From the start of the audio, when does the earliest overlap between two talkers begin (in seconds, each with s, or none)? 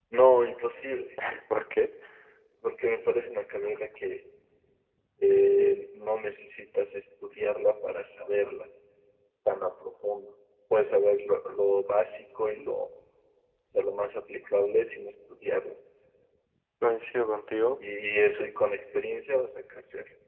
none